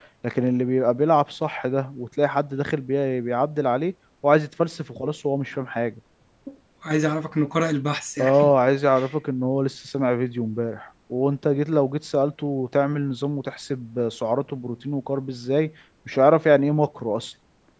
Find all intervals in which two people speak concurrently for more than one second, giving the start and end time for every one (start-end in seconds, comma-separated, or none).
none